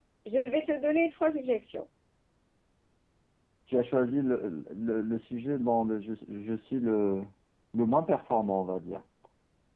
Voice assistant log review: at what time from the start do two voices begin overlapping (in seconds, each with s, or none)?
none